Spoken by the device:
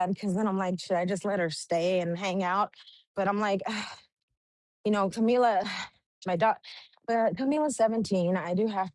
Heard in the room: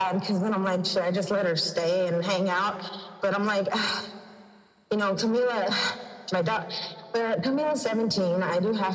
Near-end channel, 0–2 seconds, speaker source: echo only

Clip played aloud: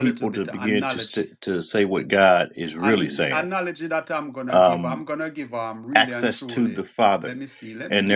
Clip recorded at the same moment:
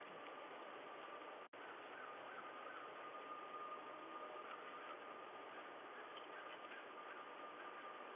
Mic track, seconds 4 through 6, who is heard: neither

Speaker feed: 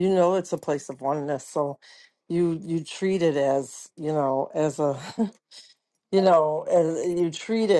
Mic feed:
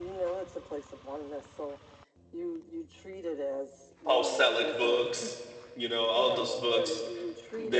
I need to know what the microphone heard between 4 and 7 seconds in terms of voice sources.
both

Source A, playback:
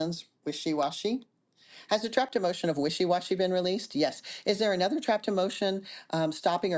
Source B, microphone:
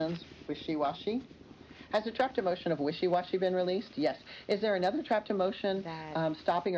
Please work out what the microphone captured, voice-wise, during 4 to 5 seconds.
echo only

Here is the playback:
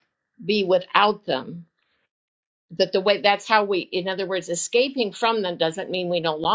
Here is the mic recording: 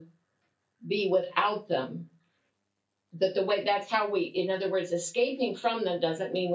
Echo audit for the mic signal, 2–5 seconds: echo only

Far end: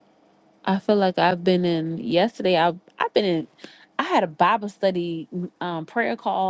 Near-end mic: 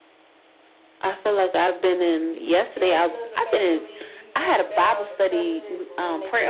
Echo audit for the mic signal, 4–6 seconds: both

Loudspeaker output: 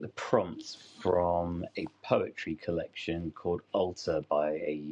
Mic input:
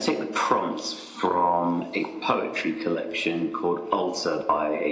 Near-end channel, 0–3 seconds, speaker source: echo only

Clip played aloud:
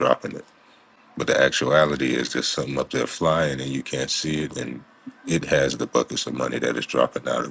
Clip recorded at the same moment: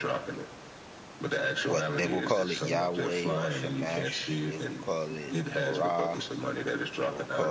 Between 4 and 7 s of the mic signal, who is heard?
both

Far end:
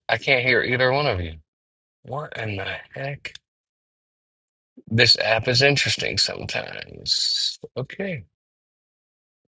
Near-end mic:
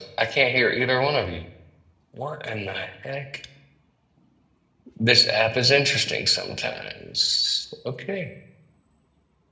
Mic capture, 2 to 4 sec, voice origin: echo only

